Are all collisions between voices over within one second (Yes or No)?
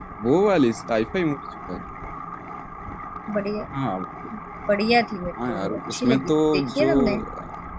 No